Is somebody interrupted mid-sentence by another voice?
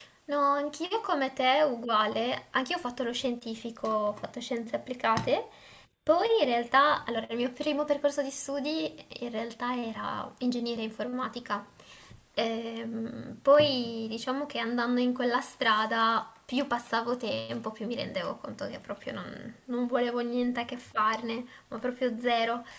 No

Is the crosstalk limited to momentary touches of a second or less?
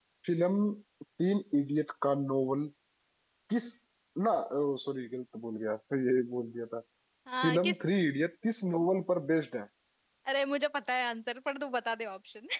Yes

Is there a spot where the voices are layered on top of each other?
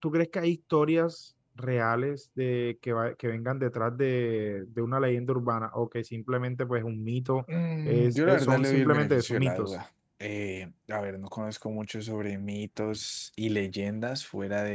Yes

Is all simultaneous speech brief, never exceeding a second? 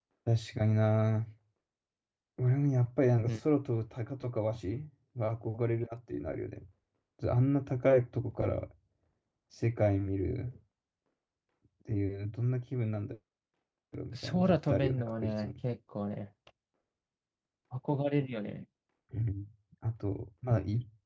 No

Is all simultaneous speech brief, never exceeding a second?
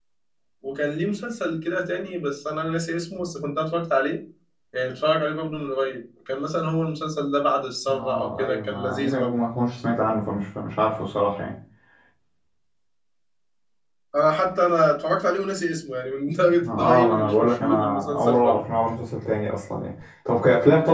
No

